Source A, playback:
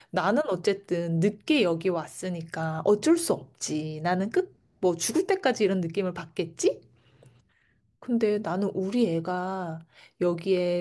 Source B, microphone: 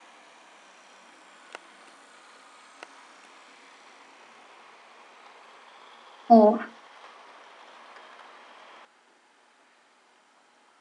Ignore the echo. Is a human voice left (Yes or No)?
Yes